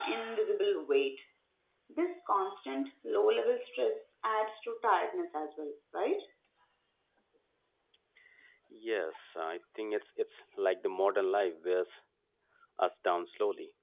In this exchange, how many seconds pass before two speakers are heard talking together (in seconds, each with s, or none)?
none